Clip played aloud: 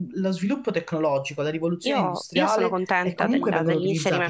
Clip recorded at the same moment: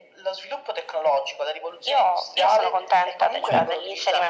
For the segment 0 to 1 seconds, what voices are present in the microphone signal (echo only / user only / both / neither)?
echo only